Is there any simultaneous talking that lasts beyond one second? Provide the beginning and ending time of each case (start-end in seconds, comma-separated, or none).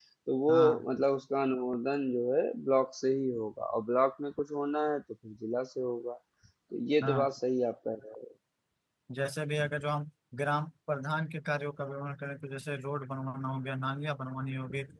none